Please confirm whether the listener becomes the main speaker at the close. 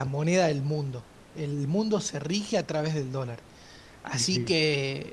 No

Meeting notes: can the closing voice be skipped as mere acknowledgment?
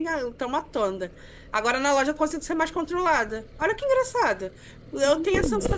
Yes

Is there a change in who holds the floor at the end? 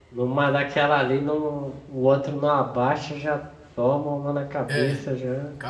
Yes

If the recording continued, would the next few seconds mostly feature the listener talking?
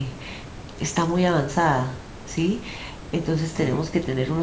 No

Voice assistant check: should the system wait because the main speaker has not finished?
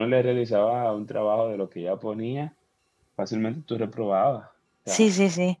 No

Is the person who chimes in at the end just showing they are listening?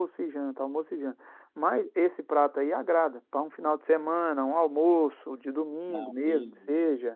Yes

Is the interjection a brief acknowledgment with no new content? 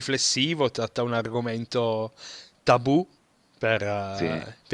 Yes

